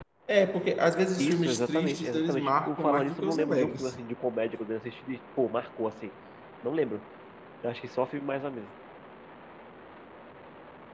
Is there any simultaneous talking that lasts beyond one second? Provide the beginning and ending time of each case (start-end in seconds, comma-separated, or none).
1.2-3.9